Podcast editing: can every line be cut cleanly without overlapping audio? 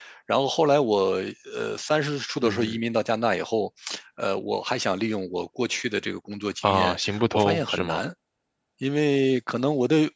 No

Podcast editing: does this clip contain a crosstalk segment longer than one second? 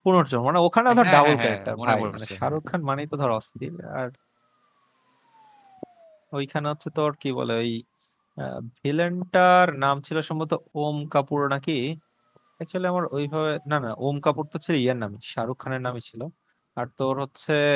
Yes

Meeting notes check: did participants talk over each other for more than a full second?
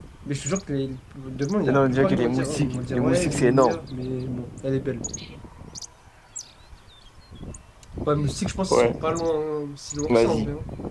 Yes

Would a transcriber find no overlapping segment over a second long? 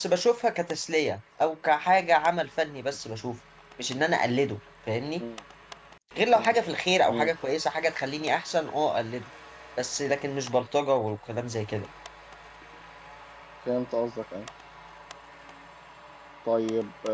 Yes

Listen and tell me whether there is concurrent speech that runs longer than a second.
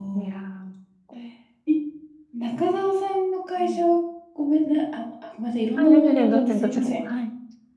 Yes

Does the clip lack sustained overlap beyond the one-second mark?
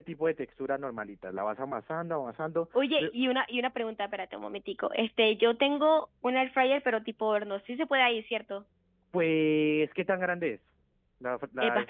Yes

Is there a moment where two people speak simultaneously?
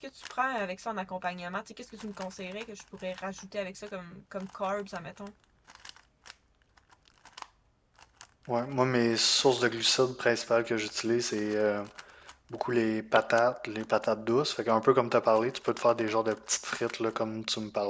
No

